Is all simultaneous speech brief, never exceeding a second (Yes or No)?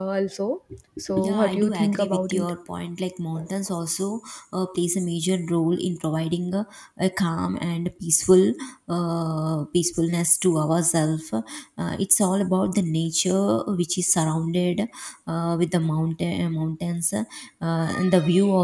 No